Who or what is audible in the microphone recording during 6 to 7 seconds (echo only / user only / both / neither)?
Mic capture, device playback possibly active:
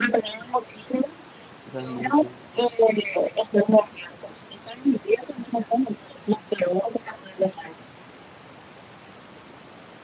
echo only